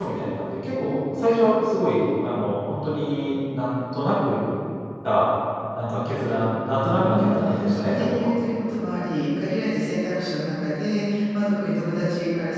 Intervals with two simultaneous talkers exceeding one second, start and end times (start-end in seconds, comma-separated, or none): 6.9-8.3